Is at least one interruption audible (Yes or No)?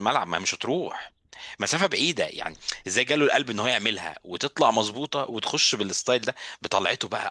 No